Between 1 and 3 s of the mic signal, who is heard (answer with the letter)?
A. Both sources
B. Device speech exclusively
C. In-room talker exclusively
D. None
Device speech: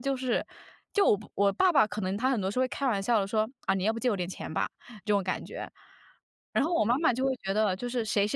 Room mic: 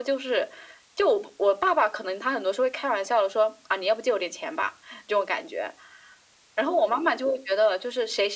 B